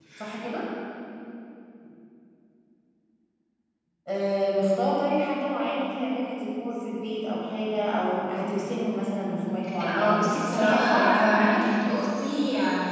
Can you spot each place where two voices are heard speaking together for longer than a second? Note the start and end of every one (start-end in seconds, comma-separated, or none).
9.9-11.6